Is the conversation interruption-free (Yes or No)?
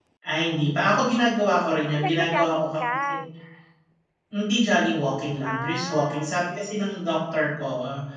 No